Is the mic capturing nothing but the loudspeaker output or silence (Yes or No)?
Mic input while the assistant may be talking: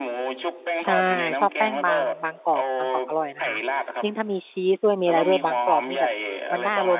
No